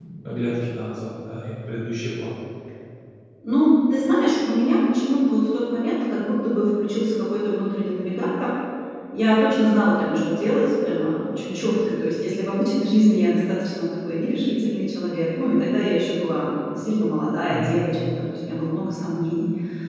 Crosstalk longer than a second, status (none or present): none